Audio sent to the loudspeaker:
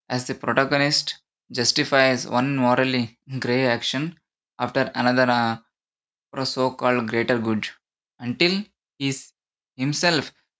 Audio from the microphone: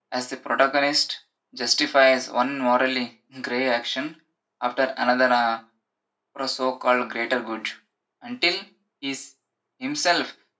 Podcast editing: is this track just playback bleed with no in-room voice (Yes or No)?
Yes